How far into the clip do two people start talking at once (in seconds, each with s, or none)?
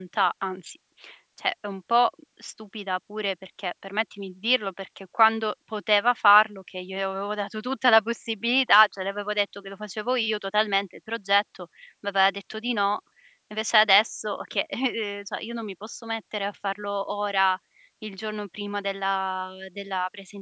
none